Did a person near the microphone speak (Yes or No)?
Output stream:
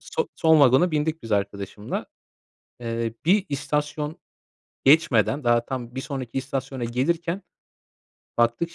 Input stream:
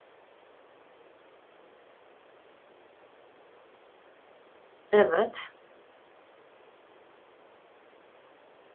Yes